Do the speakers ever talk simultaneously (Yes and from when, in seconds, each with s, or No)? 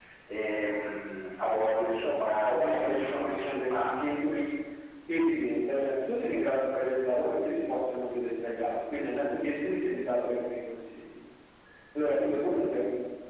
Yes, from 2.1 s